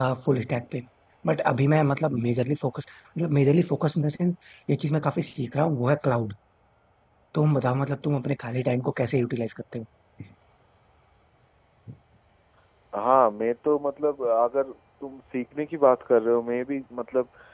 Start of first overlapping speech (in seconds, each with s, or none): none